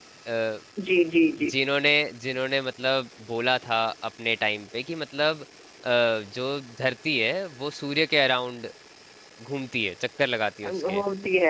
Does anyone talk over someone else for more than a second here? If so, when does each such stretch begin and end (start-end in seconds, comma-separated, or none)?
none